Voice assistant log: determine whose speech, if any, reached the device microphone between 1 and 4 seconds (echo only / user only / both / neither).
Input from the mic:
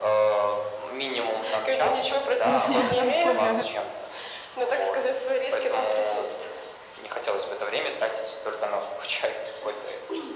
both